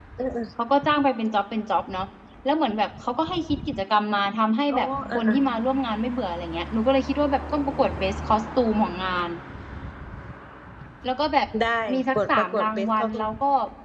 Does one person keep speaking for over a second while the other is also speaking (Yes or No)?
Yes